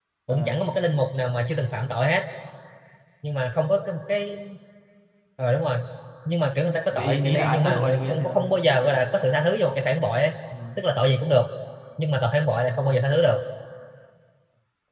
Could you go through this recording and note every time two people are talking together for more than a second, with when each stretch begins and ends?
6.9-8.2

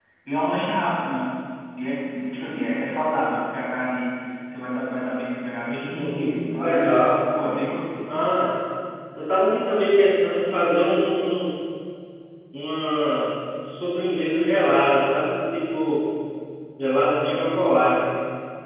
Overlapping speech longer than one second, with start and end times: 5.7-7.0

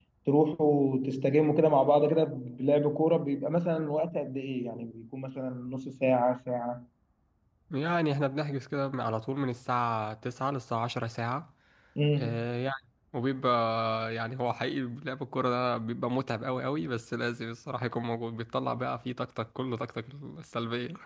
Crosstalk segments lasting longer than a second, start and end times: none

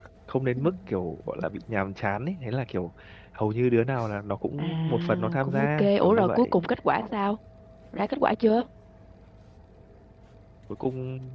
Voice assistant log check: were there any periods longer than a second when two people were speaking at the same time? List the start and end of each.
4.6-6.5

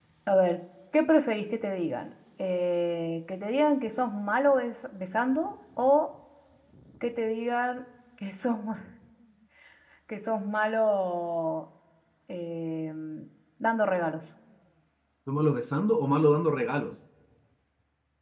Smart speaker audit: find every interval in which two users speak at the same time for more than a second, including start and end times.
none

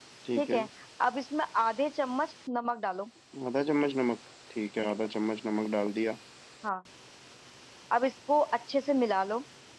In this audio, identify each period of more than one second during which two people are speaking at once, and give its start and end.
none

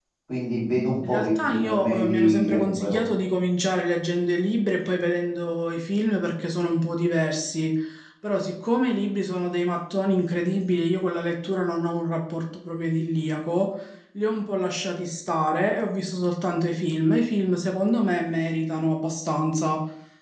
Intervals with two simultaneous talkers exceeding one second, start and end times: 1.0-3.0

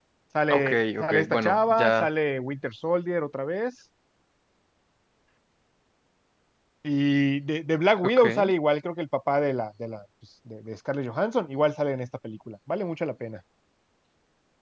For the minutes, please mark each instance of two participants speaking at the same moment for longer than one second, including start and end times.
0.5-2.1

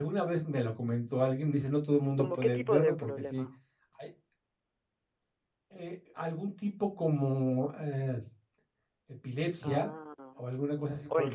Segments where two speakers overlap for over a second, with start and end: 2.2-3.4

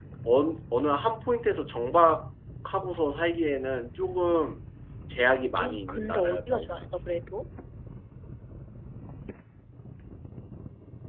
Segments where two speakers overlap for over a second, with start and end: 5.3-6.9

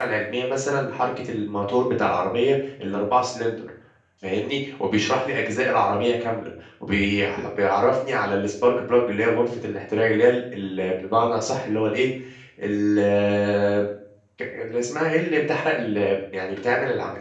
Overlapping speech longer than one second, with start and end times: none

